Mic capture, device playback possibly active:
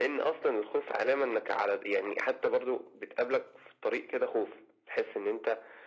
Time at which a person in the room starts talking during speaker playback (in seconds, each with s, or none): none